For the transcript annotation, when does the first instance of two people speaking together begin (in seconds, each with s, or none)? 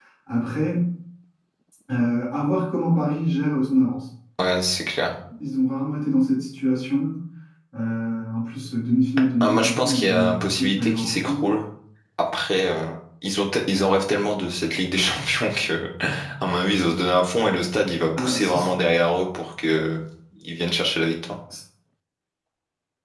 9.4 s